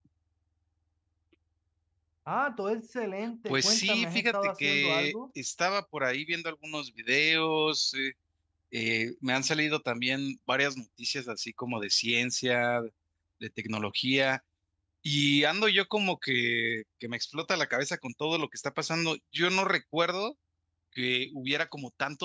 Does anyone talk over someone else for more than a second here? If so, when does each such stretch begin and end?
3.5-5.1

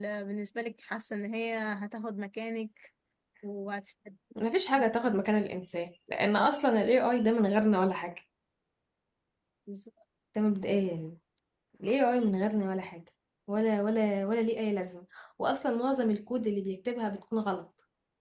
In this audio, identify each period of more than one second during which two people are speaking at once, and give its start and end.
none

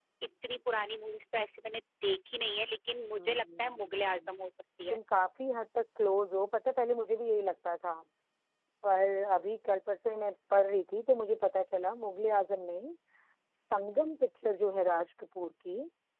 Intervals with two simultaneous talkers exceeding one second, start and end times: 3.2-4.4

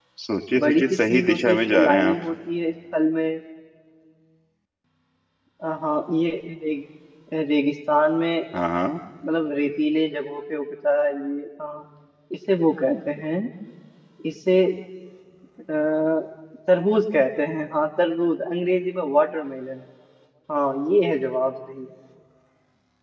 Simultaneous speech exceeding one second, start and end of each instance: 0.6-2.1

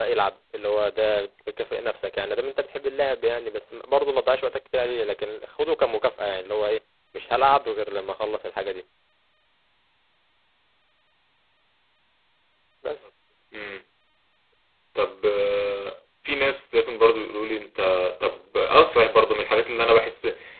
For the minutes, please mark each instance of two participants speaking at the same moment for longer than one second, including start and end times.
none

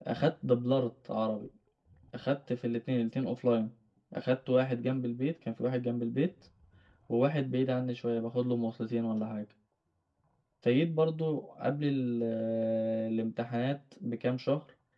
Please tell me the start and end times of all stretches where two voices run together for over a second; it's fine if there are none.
none

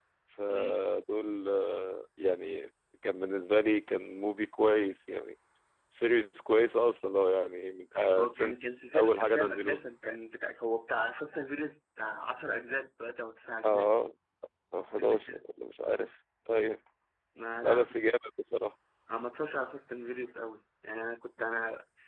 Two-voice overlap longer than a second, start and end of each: 8.2-9.8

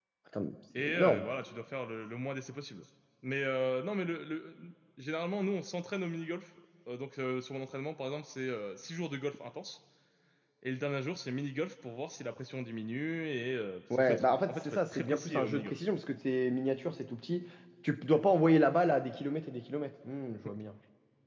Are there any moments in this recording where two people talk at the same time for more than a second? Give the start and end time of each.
13.9-15.7

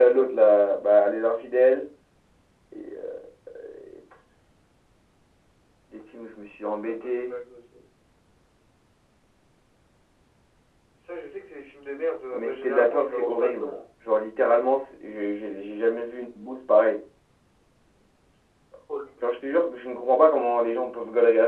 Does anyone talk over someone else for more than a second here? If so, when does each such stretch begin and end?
12.3-13.7

